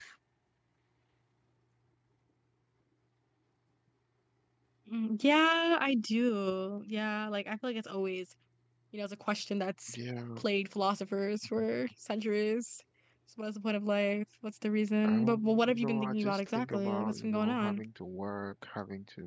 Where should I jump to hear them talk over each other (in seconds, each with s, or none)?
15.0 s